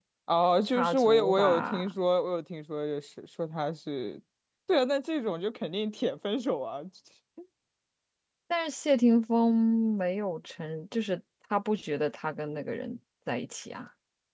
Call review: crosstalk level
present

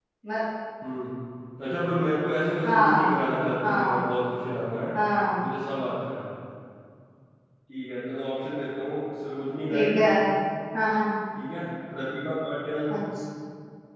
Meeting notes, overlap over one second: none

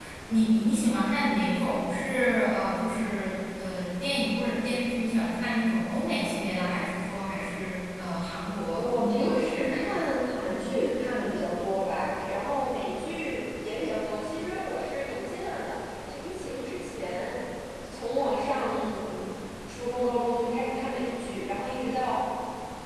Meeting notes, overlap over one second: present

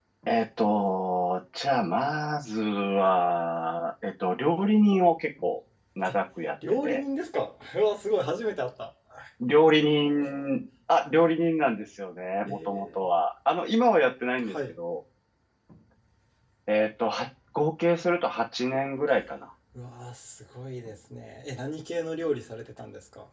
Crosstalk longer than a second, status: none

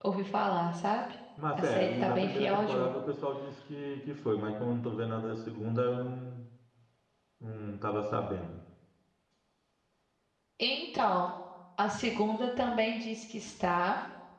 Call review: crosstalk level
present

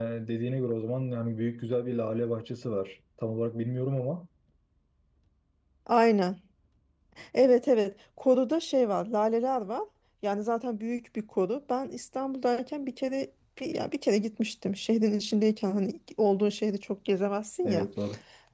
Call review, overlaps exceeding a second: none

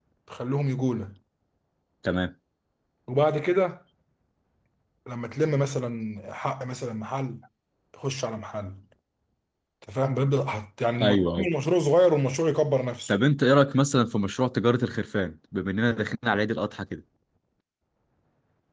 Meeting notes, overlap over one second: none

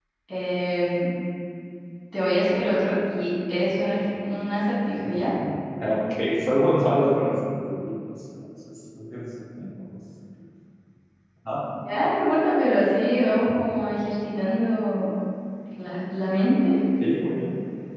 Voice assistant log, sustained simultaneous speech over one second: none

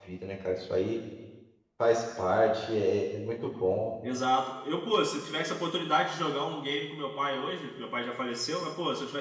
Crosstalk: none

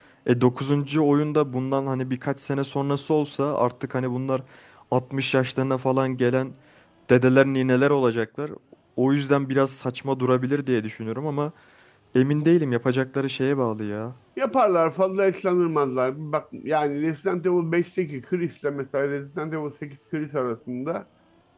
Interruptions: none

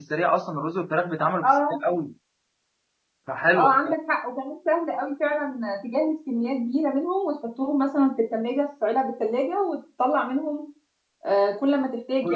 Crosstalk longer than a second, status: none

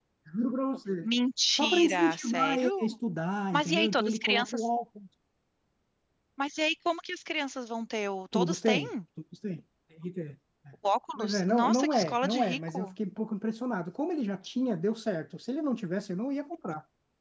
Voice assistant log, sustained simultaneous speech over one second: present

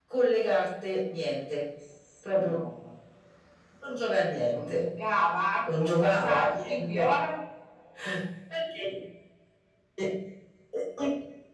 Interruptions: present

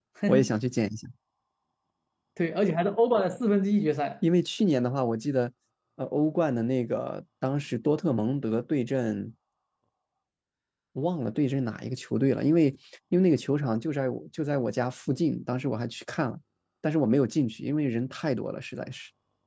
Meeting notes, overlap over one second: none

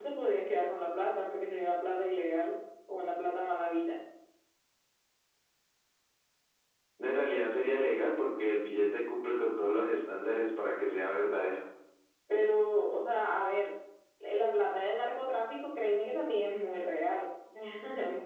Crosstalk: none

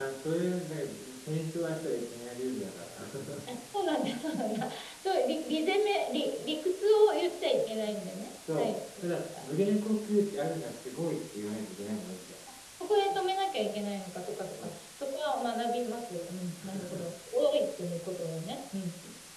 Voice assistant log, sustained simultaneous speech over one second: none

